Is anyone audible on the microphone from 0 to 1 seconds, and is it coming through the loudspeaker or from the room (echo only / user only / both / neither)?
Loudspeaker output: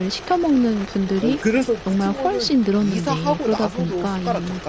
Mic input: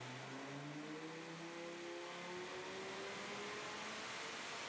neither